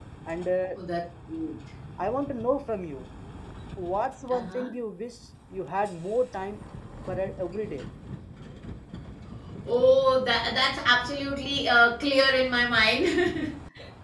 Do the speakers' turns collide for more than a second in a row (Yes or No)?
No